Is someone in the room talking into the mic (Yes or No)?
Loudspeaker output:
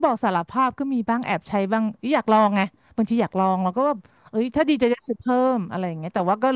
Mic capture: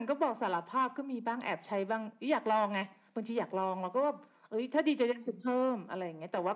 Yes